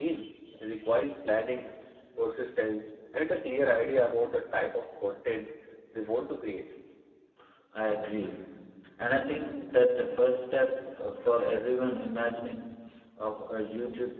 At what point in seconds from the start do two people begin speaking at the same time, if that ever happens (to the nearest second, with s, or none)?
none